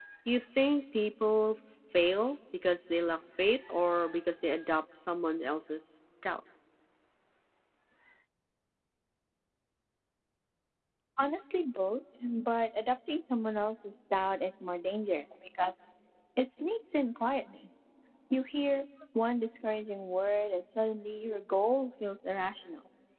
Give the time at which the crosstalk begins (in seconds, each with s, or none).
none